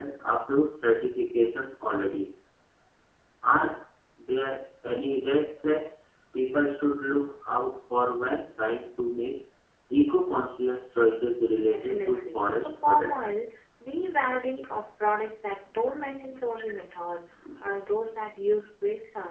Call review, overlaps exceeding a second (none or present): present